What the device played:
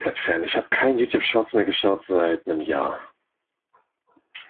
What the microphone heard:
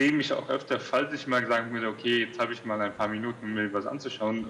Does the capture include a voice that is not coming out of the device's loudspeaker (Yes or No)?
Yes